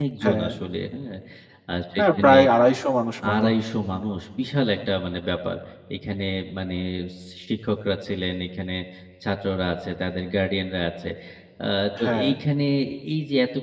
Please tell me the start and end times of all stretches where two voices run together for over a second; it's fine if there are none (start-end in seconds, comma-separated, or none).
none